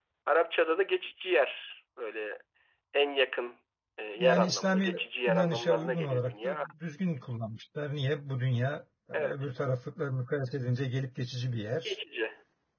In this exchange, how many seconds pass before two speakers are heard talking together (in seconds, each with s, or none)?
4.2 s